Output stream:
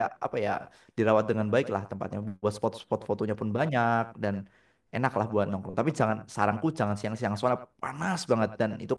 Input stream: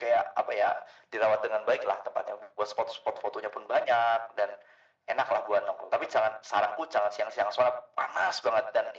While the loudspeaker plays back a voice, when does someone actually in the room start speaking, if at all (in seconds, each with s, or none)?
none